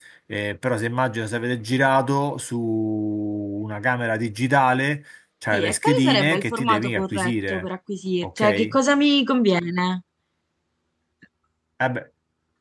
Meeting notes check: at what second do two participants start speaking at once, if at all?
5.5 s

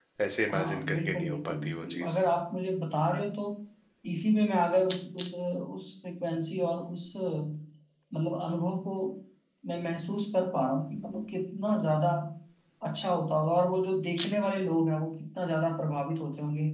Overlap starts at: 0.5 s

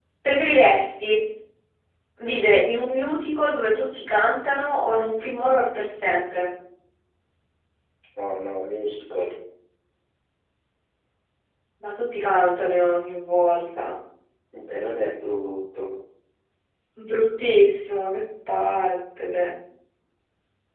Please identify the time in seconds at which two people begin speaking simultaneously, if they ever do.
none

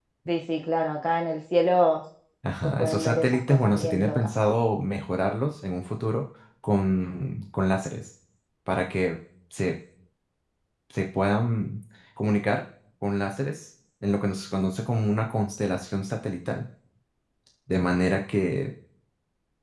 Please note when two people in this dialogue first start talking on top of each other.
2.6 s

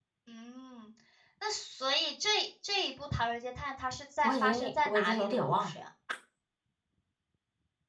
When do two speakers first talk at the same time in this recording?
4.2 s

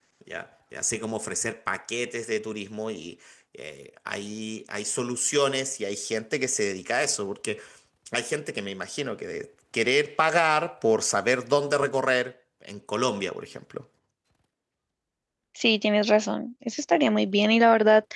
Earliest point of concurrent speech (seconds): none

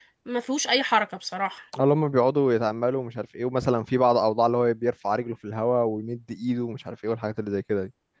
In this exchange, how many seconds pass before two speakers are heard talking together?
none

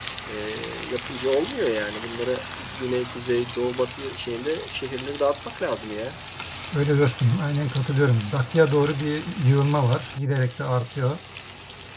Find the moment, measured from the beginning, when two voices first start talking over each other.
none

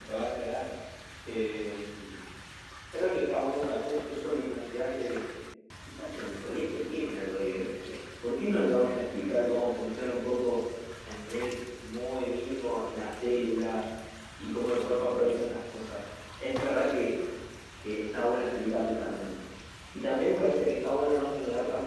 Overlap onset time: none

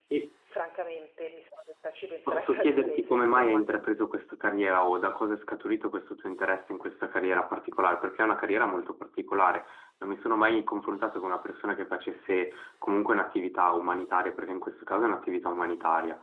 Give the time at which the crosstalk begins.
2.3 s

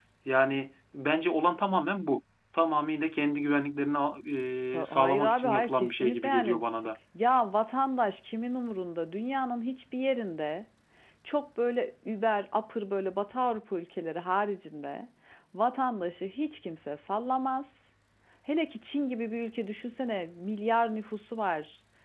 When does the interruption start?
4.8 s

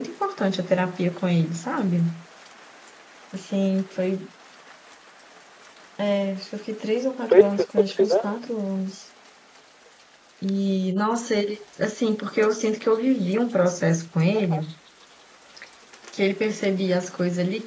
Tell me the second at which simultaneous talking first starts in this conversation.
7.3 s

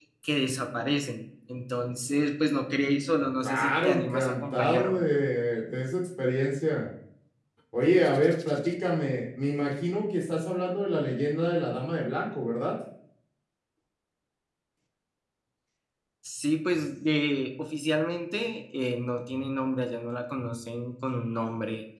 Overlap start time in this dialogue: 3.4 s

